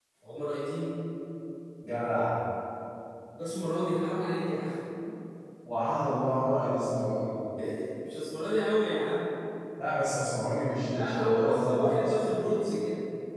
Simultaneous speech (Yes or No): Yes